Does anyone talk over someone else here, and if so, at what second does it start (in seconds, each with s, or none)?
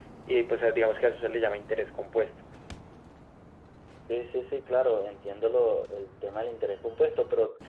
none